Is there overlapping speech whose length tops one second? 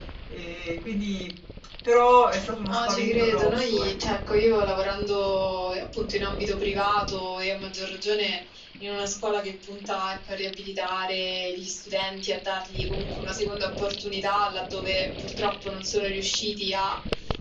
Yes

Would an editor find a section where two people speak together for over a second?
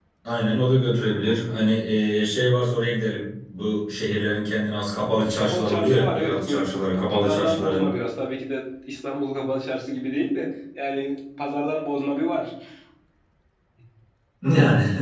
Yes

